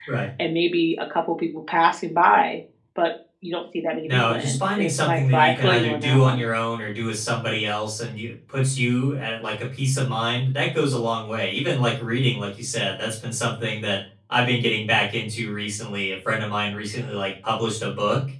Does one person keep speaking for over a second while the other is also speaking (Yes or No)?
Yes